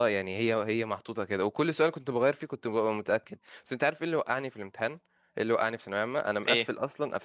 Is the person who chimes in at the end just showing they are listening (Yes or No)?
Yes